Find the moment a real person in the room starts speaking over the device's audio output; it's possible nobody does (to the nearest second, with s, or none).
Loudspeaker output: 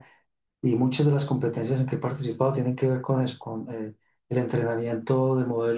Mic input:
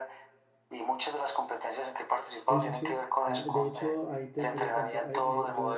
2 s